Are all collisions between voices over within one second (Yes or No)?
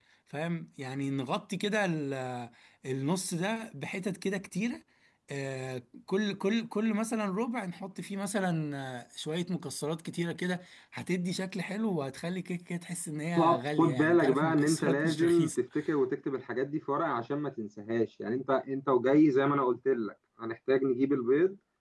No